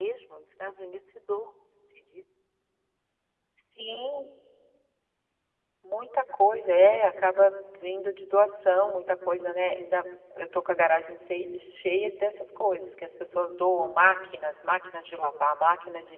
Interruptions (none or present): none